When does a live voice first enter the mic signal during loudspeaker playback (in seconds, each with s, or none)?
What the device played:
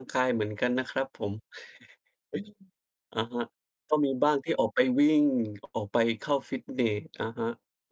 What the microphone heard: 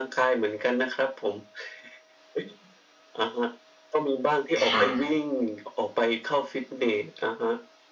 4.6 s